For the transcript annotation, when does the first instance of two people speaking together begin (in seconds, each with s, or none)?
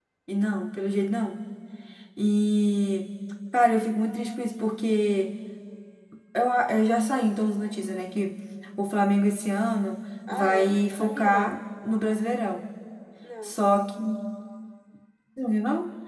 10.3 s